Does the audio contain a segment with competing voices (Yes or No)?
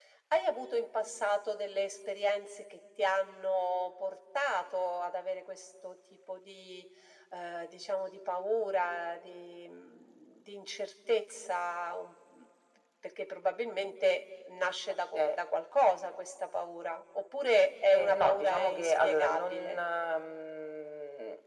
Yes